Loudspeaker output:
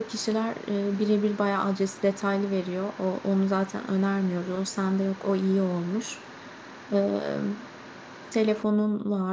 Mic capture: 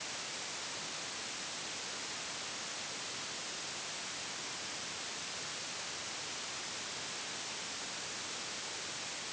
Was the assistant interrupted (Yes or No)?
No